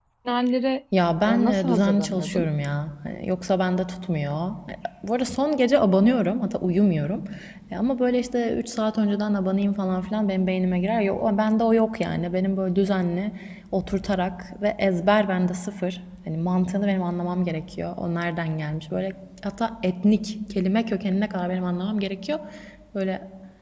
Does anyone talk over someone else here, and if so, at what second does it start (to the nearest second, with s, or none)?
1 s